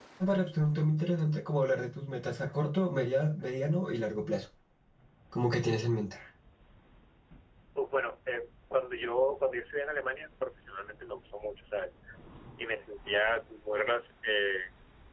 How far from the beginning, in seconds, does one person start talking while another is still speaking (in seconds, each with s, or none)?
none